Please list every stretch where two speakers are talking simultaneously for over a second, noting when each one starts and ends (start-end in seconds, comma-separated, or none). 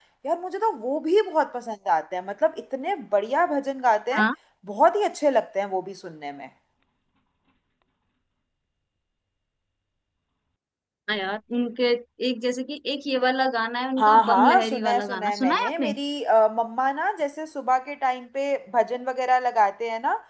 14.0-15.9